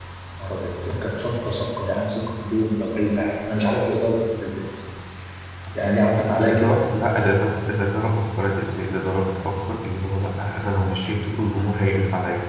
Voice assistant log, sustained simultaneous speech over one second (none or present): none